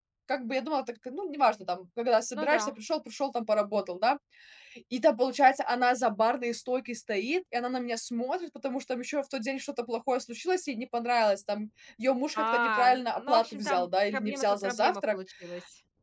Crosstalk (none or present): present